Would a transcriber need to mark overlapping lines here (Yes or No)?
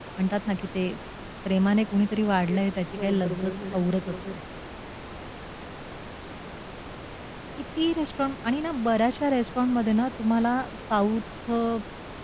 Yes